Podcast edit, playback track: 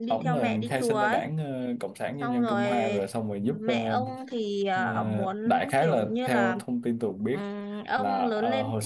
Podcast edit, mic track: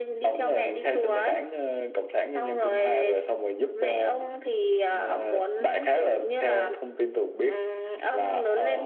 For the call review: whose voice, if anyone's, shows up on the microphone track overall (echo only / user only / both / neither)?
echo only